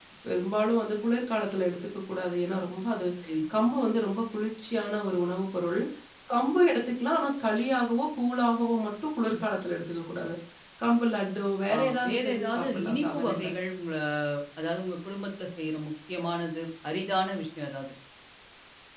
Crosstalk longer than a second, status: present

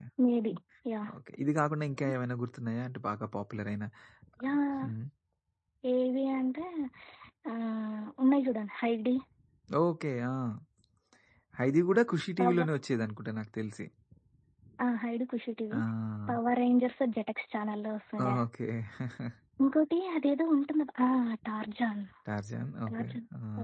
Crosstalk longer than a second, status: none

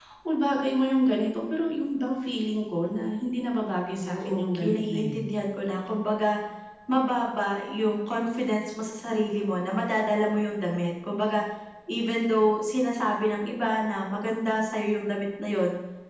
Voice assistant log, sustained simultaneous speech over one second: present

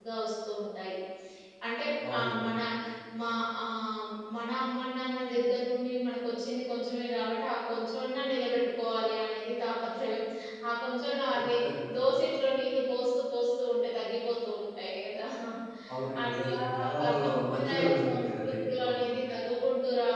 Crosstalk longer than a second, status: present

